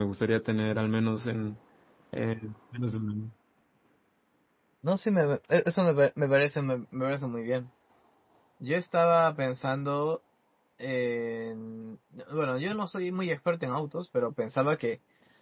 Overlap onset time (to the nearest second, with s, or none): none